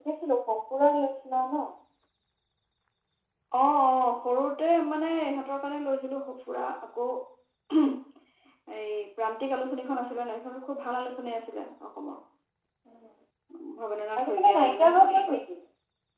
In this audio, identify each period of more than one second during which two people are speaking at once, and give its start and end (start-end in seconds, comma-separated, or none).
14.2-15.4